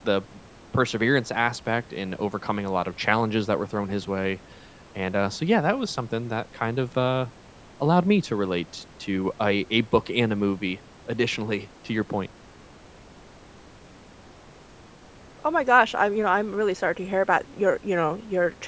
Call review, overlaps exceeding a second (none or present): none